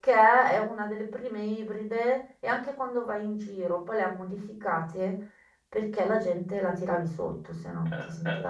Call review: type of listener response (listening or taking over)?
taking over